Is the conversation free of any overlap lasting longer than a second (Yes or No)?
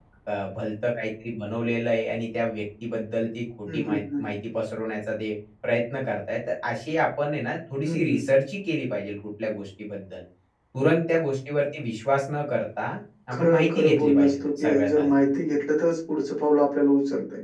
No